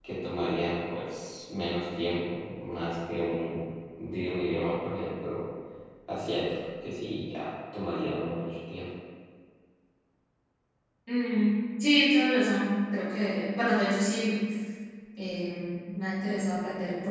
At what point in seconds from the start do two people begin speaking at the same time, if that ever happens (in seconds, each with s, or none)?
none